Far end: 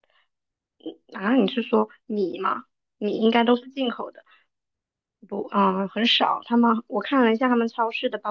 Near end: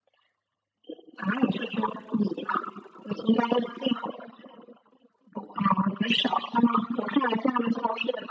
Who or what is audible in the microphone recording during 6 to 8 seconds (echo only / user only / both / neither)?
echo only